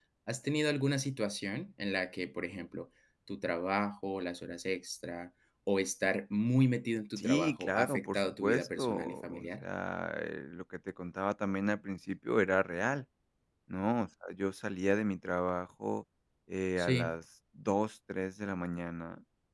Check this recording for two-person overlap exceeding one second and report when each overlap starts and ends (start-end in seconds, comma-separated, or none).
7.2-9.7